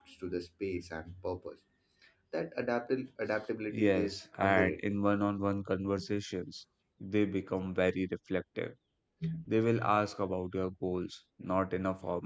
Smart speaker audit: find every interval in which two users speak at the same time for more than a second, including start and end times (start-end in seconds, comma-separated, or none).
3.7-4.9